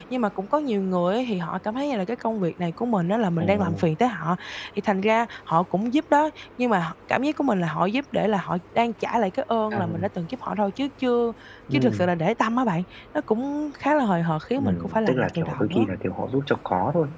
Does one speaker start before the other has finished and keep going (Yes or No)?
Yes